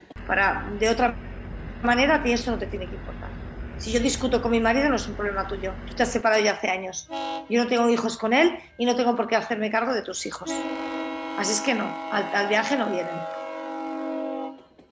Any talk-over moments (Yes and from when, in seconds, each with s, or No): No